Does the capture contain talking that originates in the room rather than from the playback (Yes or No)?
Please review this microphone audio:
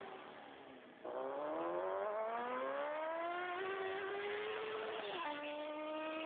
No